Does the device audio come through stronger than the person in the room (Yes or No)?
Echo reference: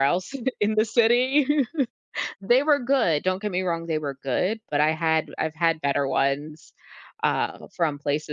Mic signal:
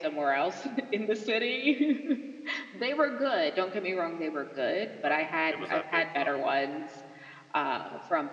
Yes